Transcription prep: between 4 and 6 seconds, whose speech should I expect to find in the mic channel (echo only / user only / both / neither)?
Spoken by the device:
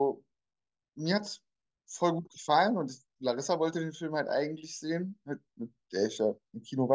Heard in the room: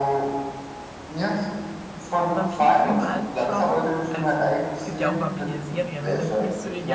both